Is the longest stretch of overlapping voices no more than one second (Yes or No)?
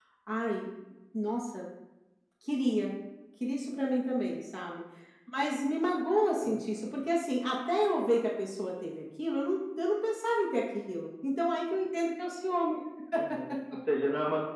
Yes